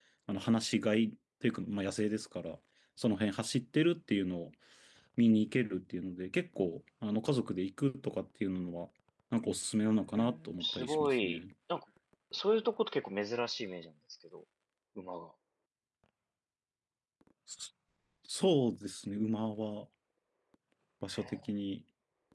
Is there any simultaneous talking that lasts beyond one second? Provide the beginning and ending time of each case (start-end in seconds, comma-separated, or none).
10.1-11.4